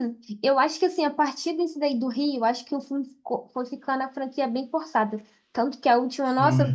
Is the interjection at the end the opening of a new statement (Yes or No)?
No